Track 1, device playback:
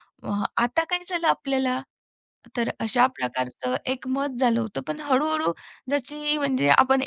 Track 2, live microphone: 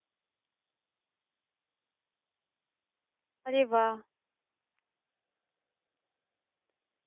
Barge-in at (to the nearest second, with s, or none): 3 s